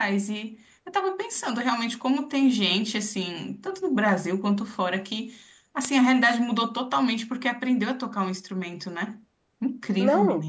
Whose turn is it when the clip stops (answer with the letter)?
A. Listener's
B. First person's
A